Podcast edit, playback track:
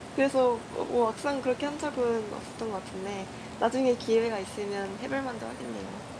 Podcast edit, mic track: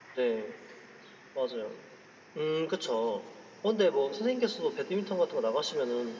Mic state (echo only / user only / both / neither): user only